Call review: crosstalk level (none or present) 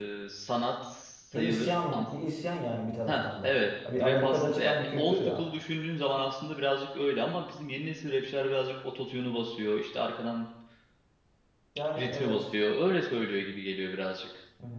present